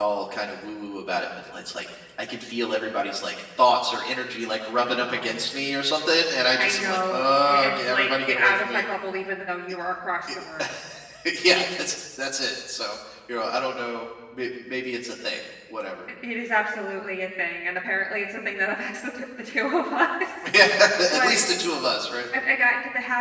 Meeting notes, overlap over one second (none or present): present